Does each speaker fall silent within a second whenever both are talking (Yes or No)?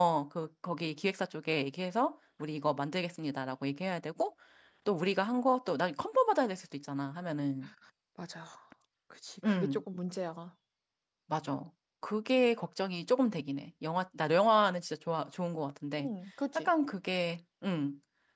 Yes